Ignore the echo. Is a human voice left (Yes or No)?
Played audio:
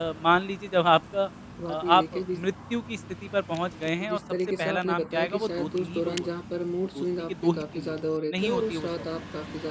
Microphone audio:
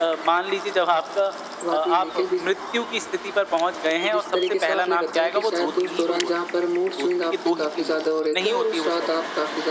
No